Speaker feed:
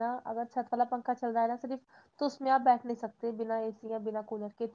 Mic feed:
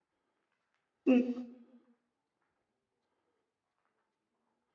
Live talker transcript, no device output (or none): ام،